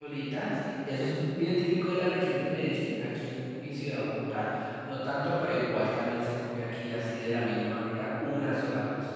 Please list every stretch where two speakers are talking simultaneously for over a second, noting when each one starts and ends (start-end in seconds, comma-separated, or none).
none